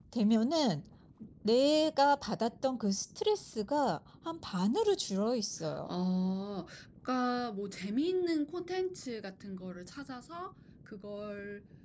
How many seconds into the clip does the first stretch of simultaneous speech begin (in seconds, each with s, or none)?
none